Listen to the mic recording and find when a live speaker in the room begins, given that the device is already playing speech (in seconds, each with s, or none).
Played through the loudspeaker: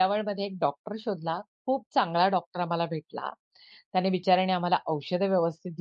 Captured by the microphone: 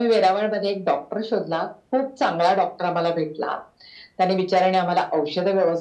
none